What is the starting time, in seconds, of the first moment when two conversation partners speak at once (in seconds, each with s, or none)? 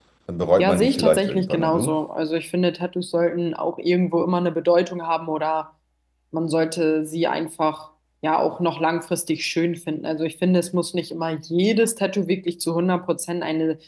0.6 s